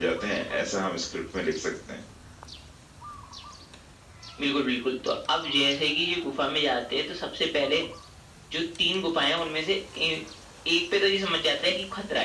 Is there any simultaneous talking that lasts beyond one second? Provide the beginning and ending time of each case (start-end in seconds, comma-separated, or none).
none